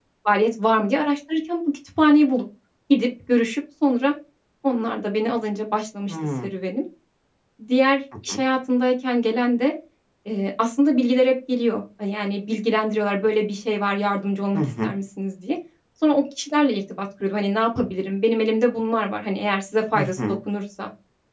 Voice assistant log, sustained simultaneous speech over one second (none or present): none